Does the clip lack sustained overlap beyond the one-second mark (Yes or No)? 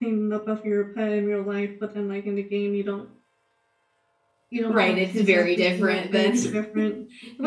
No